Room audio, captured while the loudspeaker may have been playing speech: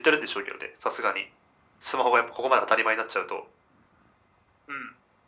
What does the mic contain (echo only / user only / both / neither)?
echo only